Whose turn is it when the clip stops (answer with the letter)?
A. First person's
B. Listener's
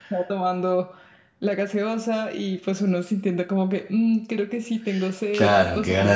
B